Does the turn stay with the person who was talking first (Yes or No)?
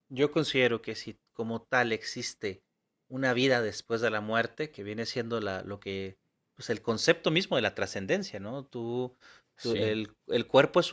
Yes